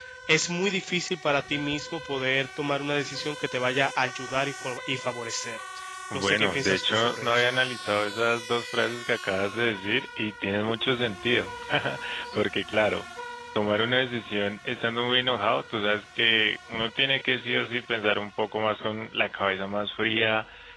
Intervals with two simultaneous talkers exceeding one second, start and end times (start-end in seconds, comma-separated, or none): 6.1-7.5